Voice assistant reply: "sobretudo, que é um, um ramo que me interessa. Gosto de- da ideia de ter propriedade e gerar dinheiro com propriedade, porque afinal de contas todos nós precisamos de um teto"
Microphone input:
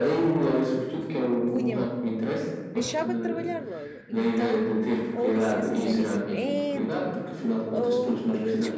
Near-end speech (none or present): present